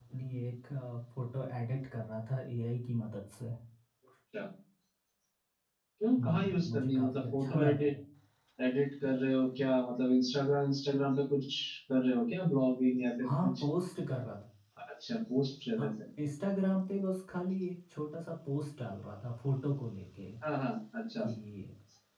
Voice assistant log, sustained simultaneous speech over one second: present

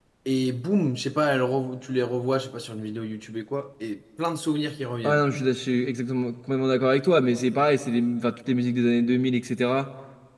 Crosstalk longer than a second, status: none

